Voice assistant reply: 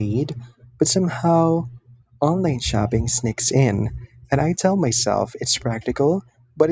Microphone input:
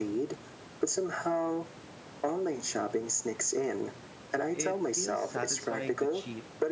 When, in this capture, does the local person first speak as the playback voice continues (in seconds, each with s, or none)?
4.5 s